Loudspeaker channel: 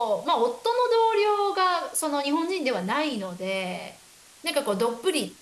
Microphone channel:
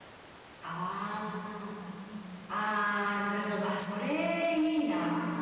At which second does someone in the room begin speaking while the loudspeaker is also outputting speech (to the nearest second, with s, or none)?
1 s